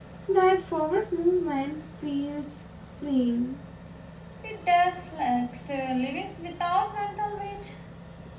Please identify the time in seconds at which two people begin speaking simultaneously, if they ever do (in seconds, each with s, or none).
none